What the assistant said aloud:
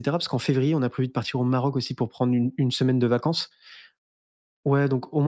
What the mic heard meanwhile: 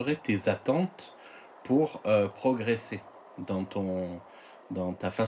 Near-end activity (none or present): present